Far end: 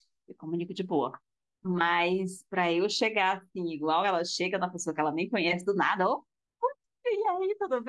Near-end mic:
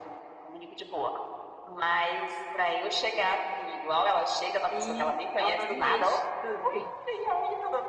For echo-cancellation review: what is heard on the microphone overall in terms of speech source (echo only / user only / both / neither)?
both